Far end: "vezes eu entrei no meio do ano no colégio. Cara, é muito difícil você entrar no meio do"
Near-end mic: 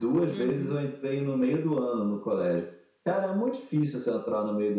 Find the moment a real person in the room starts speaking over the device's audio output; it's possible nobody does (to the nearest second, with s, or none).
0 s